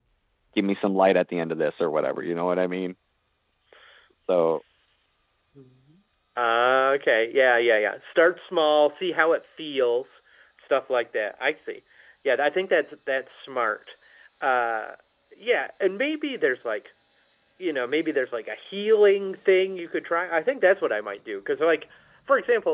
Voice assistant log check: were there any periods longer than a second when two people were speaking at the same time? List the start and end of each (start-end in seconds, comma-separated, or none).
none